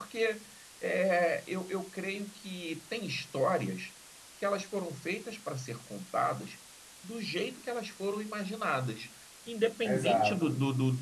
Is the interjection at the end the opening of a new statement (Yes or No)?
No